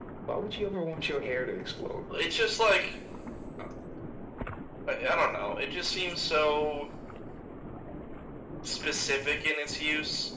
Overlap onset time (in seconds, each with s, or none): none